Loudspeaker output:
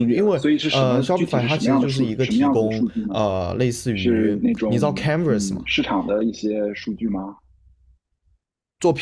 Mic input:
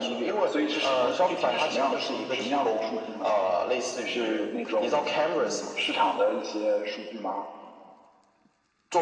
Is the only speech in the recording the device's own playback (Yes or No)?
Yes